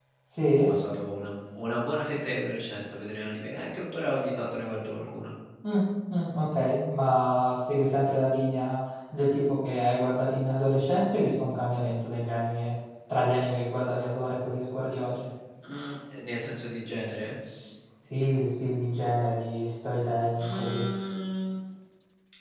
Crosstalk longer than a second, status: none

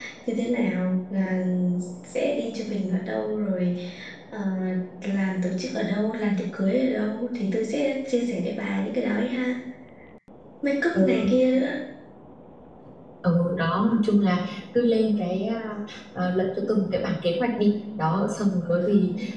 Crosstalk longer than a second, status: none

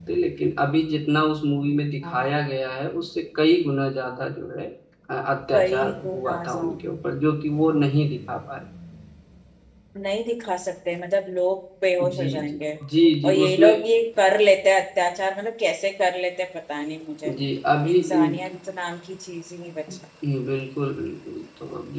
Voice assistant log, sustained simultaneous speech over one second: present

